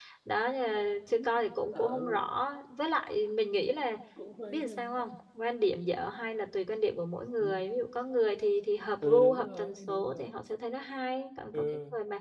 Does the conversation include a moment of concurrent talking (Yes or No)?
Yes